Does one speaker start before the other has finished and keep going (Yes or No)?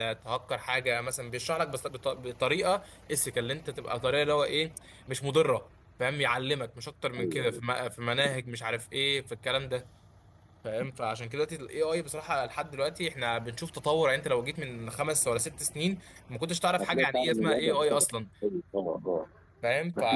Yes